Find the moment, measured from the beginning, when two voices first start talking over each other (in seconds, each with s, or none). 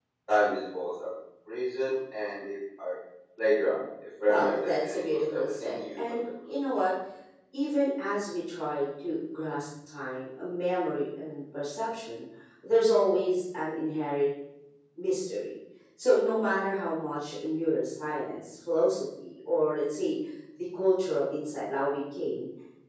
4.3 s